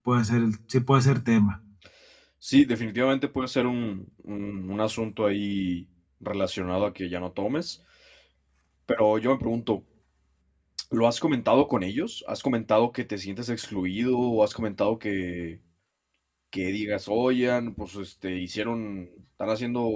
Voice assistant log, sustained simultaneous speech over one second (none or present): none